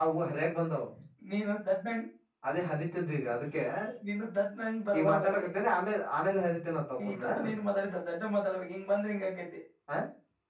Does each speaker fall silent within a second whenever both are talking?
Yes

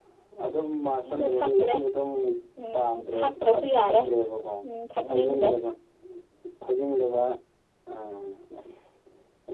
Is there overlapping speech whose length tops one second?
Yes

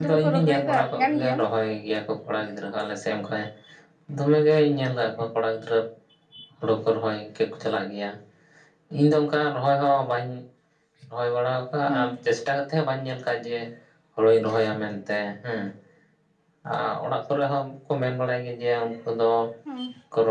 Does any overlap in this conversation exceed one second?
Yes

